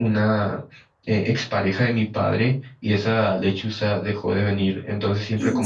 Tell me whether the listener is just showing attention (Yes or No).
Yes